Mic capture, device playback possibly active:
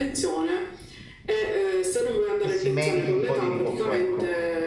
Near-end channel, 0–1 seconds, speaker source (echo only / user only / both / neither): echo only